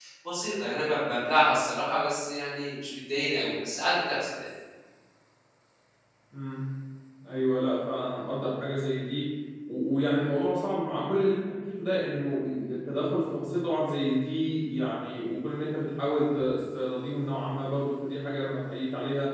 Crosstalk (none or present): none